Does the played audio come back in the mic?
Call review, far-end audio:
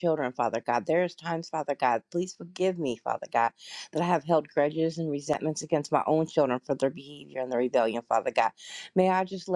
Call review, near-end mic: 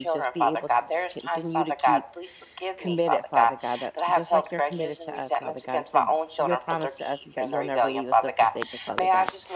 Yes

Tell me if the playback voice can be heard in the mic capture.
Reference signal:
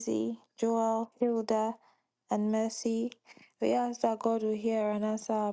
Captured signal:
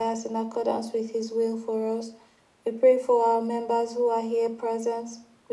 No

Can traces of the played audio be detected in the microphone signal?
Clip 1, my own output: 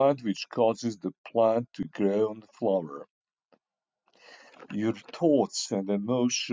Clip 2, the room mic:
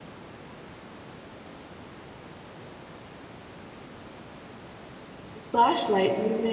No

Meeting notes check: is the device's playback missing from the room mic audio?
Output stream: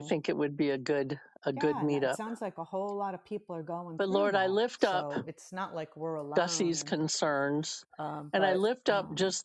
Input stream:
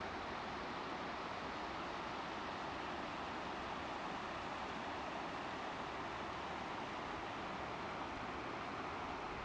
Yes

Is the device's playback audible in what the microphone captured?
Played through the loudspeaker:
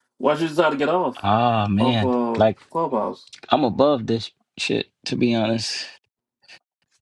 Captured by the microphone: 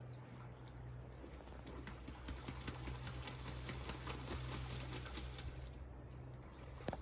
No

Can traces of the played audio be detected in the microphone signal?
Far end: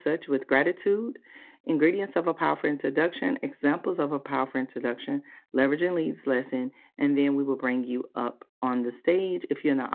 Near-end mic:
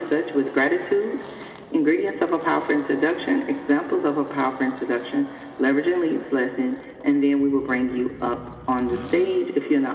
Yes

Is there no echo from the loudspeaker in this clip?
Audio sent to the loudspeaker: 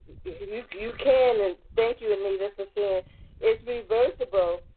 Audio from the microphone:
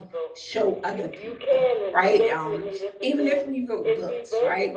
No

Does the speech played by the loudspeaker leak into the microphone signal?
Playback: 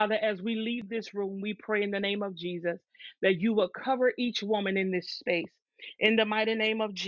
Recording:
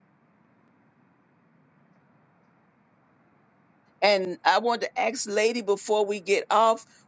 No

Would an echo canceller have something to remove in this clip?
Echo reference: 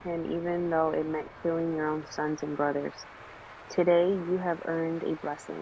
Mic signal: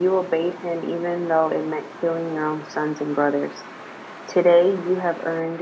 Yes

